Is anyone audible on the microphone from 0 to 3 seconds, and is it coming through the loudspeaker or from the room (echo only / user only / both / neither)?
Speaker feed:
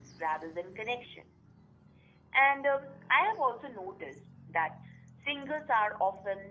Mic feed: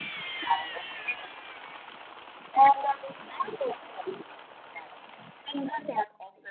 echo only